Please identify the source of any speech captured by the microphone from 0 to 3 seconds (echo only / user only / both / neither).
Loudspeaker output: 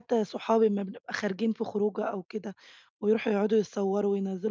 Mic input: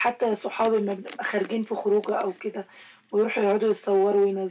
echo only